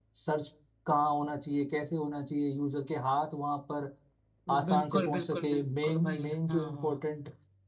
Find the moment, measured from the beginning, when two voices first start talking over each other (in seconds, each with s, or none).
4.7 s